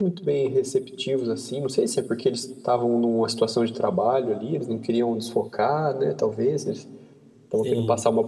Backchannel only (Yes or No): Yes